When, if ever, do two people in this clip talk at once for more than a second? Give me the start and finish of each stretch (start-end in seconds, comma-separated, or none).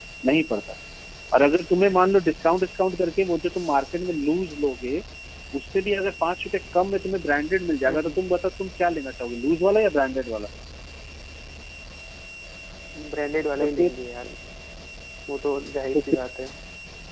none